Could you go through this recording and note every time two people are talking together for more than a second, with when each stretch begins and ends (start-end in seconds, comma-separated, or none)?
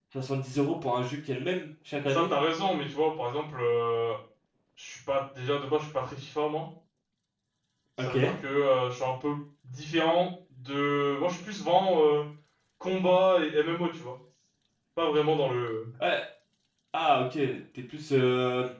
none